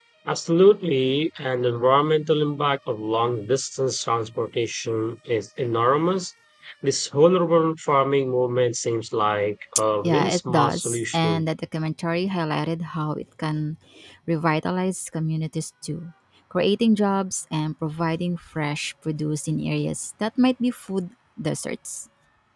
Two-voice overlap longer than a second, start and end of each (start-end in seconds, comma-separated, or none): 10.0-11.4